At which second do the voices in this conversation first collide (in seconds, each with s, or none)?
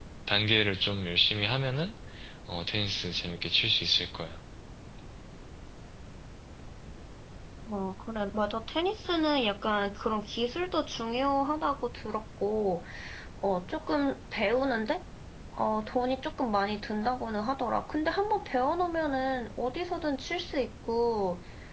none